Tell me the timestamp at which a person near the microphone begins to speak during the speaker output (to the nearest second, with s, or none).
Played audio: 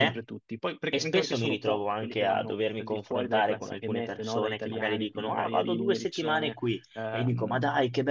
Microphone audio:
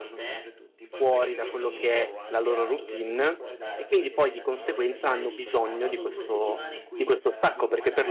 1 s